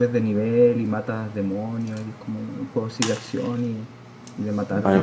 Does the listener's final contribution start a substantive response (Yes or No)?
Yes